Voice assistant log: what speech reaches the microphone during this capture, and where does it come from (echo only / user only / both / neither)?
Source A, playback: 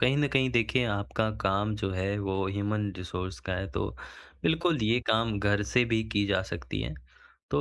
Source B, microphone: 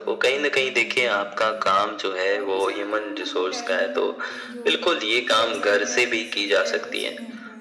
both